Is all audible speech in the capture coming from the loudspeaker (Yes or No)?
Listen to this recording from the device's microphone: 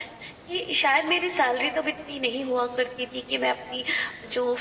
Yes